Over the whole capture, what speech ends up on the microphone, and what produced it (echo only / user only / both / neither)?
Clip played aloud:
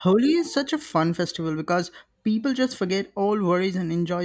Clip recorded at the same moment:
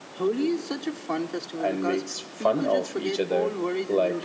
both